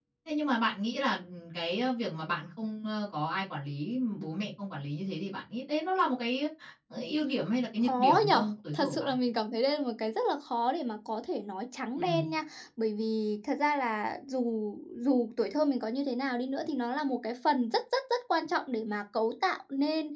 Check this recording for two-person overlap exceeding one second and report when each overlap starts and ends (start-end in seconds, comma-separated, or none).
7.8-9.1